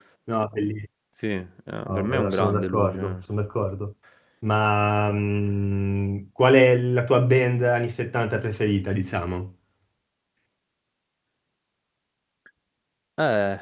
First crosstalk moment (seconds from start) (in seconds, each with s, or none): 1.9 s